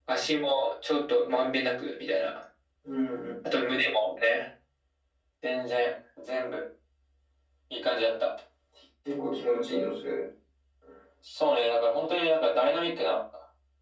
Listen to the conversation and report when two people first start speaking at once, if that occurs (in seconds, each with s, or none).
none